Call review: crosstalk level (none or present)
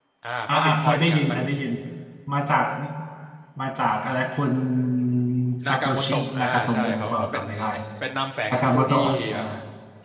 present